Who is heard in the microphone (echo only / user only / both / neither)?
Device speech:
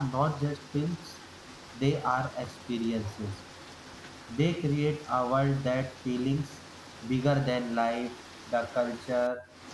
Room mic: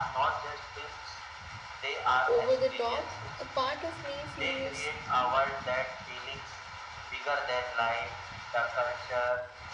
both